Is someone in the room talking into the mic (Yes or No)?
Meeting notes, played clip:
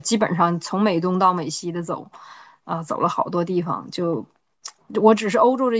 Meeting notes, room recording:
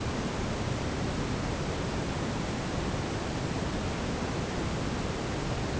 No